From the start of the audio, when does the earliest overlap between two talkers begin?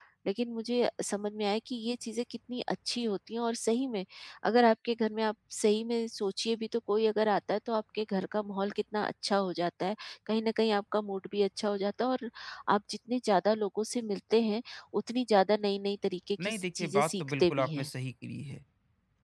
16.4 s

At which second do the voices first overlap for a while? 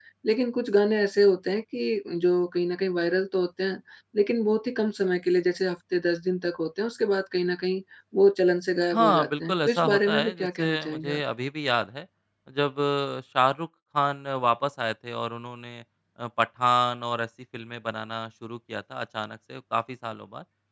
8.9 s

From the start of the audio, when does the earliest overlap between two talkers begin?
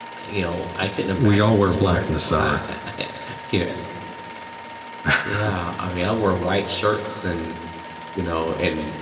1.2 s

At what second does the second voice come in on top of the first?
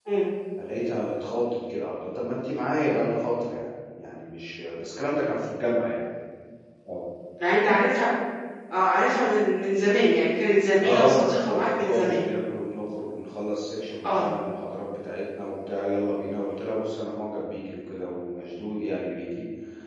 10.8 s

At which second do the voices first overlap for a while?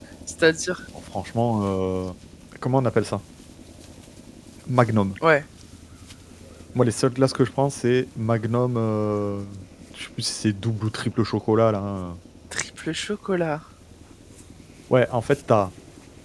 none

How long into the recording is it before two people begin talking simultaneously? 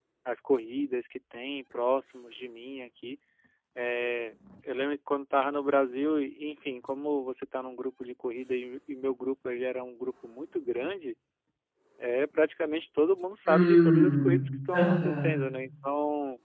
13.5 s

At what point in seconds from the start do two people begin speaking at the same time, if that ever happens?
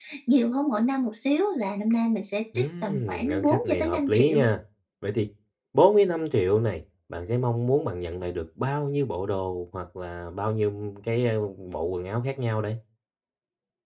2.5 s

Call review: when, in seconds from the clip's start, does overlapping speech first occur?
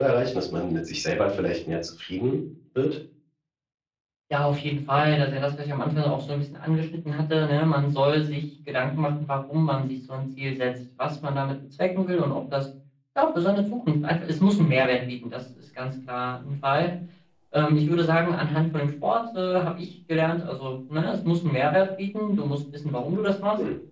none

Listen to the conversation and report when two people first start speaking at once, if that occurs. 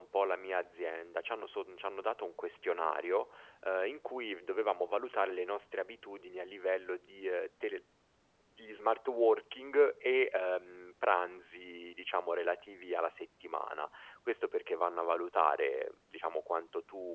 none

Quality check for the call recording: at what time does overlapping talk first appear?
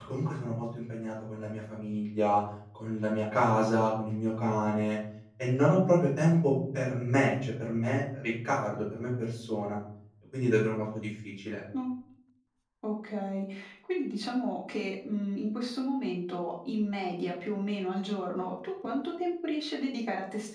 none

